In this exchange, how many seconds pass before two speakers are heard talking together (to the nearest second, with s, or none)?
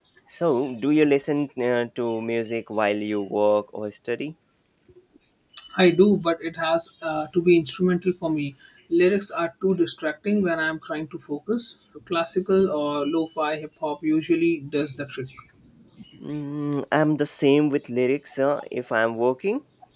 none